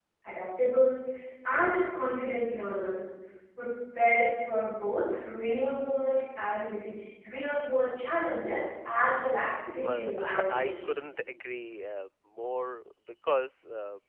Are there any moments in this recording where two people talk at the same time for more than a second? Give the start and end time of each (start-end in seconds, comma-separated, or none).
9.8-11.0